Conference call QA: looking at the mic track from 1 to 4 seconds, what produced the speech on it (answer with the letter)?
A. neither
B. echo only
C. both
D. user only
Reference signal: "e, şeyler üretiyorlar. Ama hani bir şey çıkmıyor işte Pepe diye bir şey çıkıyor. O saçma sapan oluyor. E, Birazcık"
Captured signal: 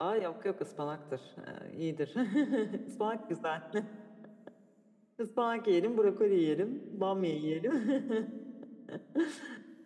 D